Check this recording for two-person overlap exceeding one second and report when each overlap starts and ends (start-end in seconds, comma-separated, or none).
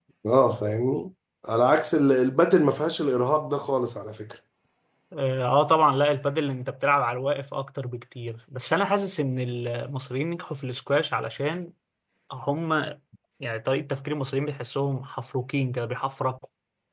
none